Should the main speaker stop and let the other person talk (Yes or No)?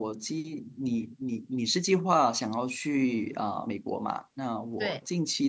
No